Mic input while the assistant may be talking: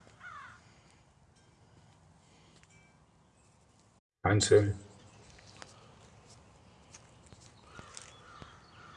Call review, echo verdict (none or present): none